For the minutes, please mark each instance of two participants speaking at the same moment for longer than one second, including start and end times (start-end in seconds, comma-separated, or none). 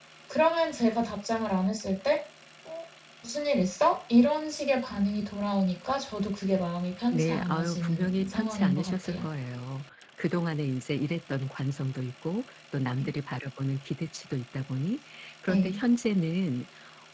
7.1-9.3